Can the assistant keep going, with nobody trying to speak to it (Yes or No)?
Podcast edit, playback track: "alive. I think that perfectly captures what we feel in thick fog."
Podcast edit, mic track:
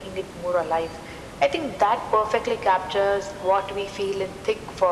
Yes